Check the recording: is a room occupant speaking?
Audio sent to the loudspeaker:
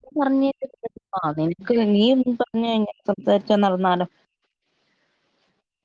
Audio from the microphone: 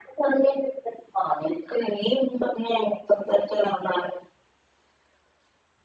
No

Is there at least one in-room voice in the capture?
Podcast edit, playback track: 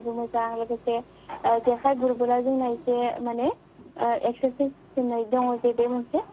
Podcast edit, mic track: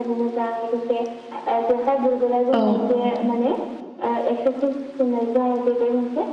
Yes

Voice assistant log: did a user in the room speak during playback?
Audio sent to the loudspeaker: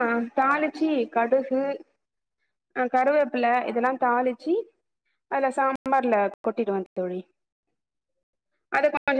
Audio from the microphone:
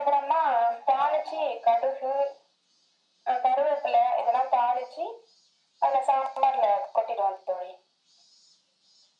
No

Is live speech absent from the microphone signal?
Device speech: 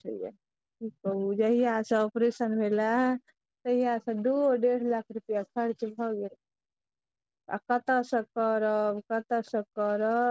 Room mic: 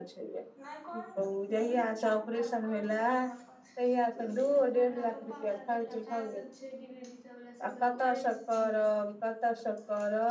No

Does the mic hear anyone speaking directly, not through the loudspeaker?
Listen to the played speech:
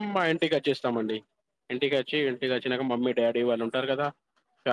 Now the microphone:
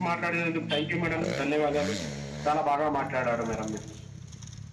Yes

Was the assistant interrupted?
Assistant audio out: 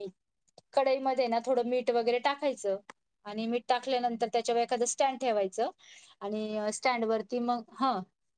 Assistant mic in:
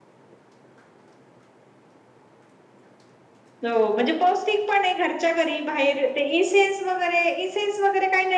Yes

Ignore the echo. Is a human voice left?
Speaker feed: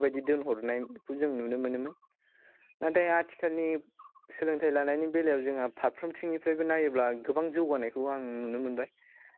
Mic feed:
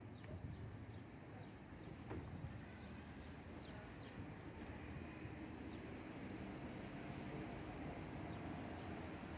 No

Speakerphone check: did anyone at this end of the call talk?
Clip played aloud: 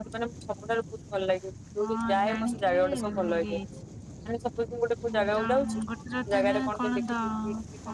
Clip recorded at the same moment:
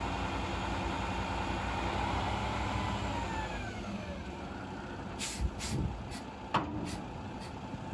No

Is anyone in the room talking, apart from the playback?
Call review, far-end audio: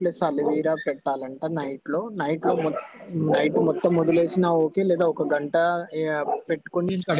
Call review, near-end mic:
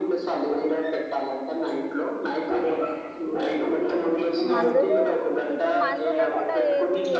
Yes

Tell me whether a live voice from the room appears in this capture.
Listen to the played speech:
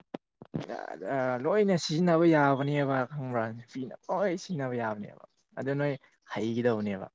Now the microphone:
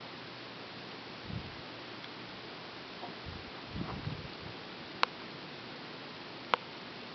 No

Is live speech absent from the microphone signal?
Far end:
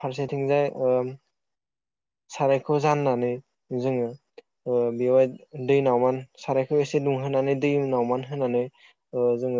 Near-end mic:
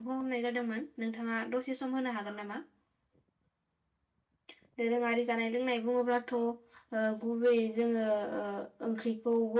No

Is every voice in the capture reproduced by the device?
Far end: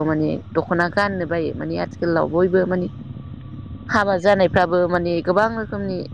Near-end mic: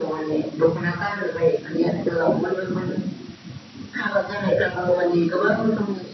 Yes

